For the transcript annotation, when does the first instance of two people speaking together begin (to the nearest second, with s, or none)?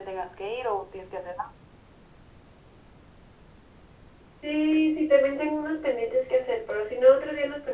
none